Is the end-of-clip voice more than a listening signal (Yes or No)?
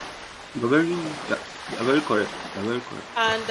Yes